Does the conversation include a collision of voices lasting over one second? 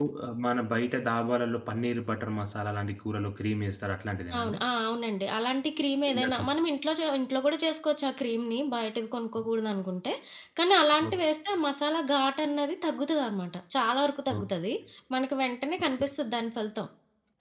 No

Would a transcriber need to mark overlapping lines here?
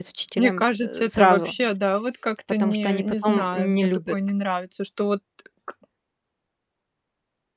Yes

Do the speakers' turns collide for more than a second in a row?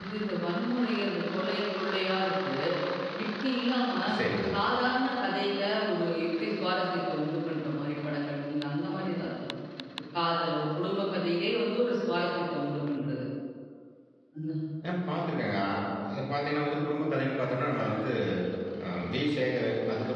No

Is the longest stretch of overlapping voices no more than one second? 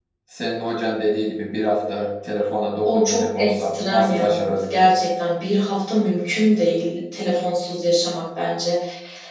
No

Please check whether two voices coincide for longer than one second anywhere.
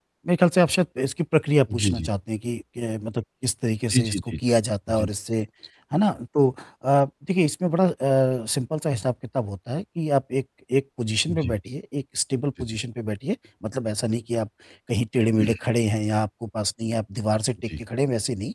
No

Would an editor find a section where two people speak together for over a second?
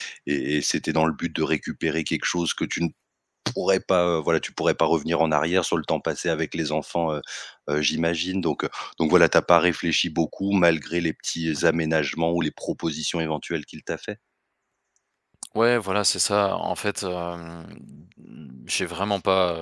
No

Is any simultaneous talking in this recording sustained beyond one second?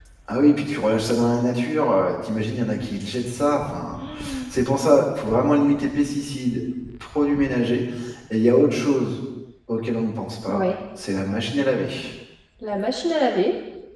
No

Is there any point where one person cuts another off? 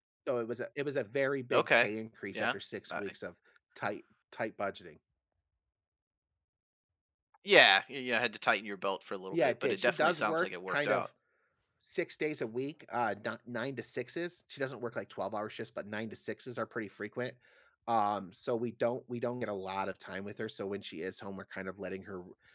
Yes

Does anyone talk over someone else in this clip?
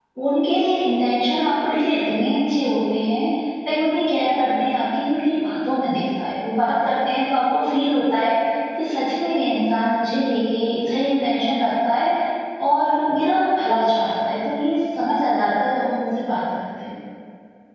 No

